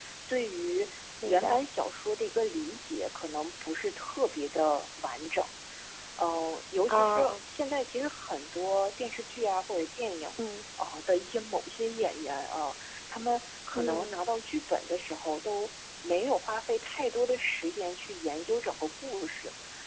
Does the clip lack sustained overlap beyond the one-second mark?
Yes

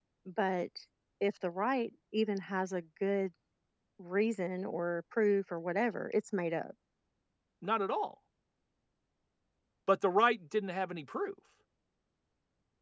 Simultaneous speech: No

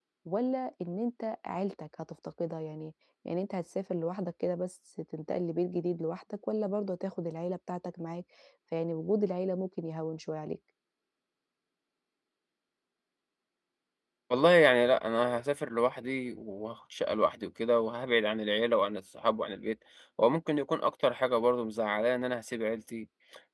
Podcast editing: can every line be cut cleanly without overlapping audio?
Yes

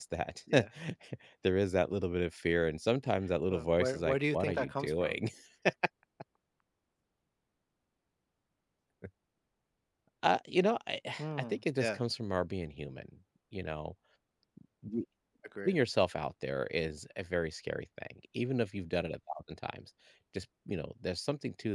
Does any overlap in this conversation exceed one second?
Yes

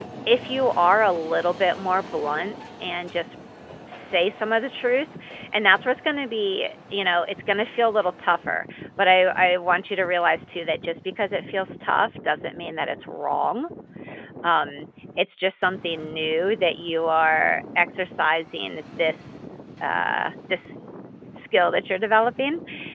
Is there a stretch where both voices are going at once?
No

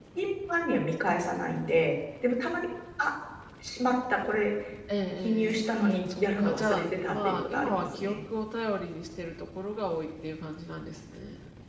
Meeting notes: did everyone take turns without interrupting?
No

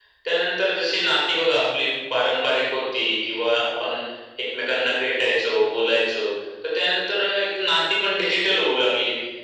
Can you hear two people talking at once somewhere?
No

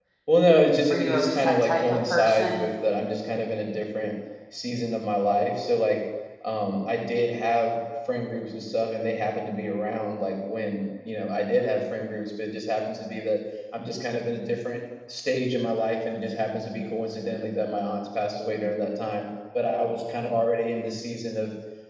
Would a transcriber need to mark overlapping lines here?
Yes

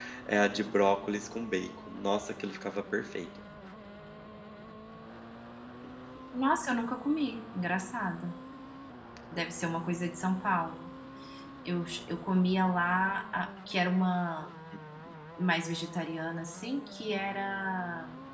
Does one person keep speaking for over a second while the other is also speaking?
No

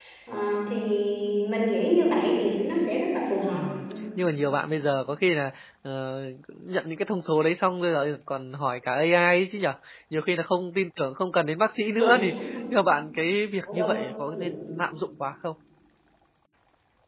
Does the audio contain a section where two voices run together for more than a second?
No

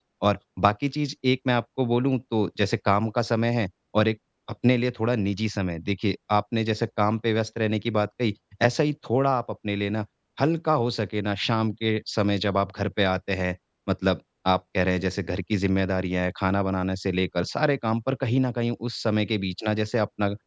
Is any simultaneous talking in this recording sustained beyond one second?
No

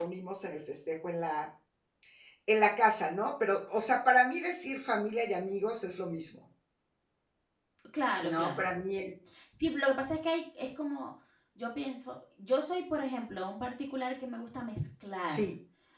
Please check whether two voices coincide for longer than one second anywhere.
No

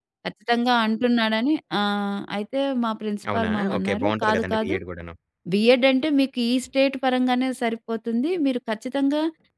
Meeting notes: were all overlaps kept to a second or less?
No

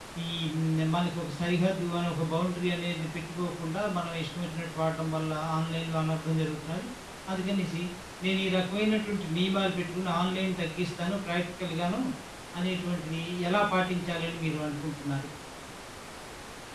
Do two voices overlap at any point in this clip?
No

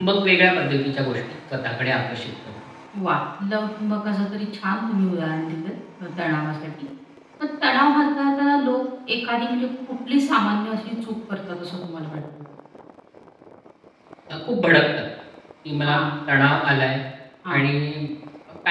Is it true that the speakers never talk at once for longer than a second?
Yes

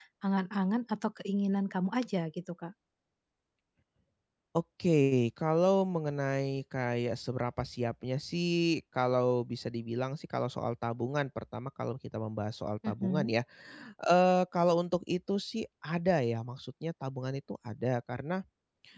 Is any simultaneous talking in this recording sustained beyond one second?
No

